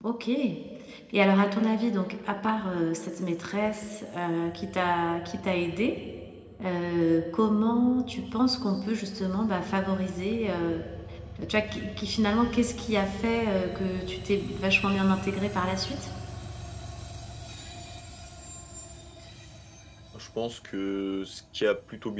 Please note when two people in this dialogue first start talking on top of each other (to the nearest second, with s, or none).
none